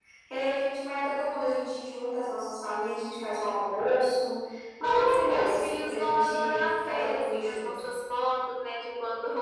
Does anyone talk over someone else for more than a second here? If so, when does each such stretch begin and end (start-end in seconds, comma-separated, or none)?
4.8-7.7